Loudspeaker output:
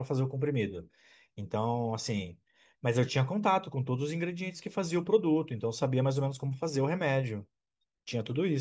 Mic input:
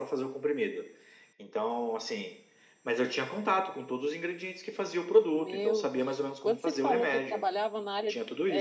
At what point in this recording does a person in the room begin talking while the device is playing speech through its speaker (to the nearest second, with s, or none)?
5 s